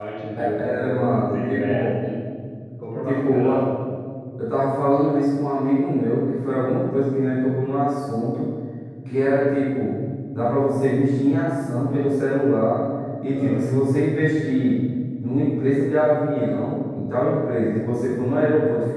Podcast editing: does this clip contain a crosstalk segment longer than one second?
Yes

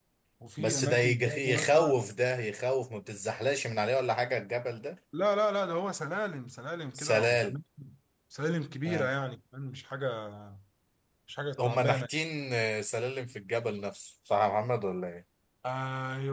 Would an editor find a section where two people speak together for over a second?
Yes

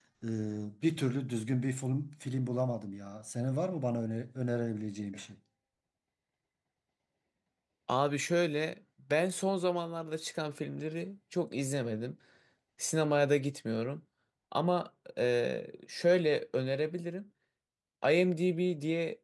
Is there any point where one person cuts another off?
No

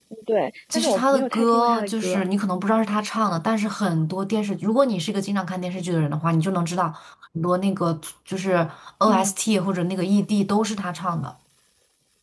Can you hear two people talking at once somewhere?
Yes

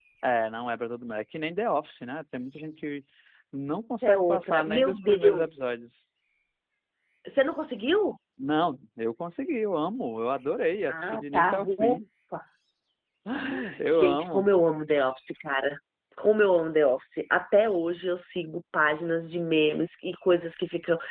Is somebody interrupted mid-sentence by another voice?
Yes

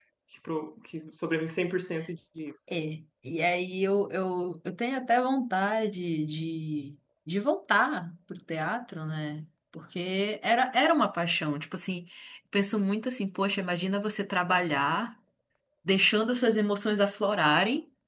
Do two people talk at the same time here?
No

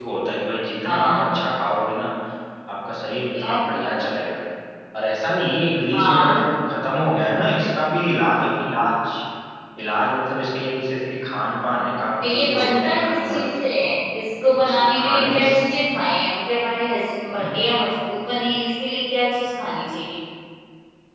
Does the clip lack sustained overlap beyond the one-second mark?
No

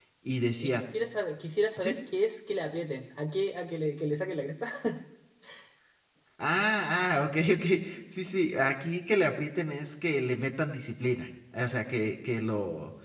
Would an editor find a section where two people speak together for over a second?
No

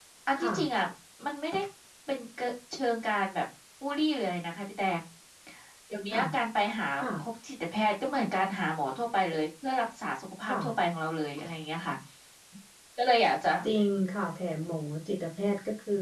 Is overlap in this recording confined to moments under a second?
Yes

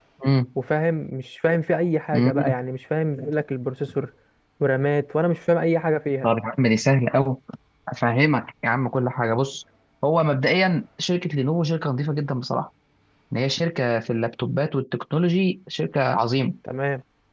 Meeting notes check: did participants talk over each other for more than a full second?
No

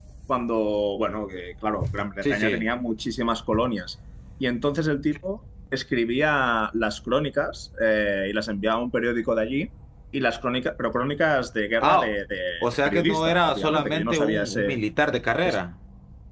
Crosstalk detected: Yes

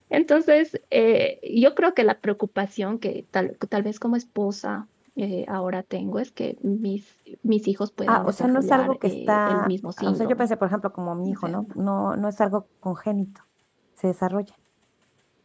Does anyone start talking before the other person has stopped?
Yes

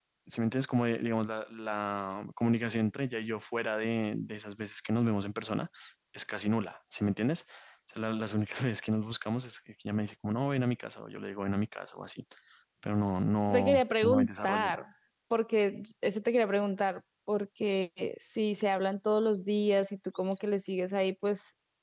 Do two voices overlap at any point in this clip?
Yes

